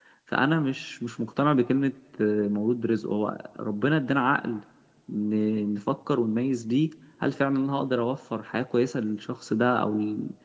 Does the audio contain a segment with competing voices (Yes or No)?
No